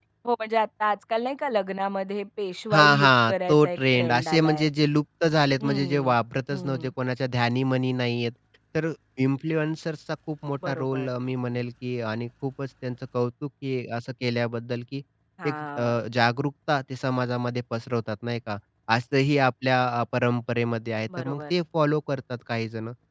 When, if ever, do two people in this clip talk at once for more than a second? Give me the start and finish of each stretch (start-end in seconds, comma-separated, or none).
2.7-4.7